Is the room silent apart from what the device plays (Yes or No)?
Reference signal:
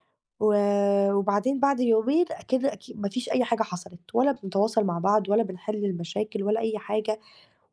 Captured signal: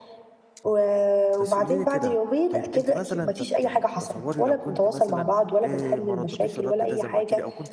No